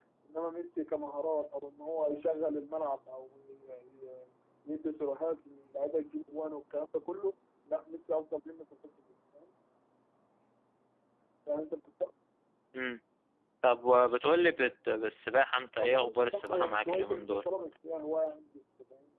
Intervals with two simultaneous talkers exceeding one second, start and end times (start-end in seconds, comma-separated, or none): 15.8-17.4